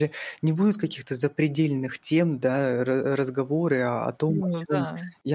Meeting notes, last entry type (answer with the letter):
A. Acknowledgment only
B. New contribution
A